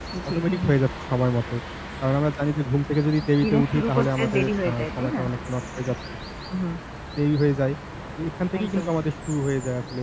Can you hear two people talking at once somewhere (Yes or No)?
Yes